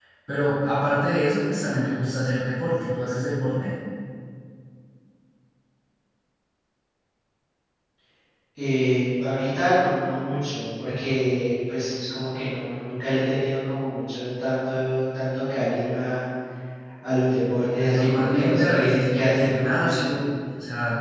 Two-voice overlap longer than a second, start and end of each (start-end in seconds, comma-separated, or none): 17.8-20.2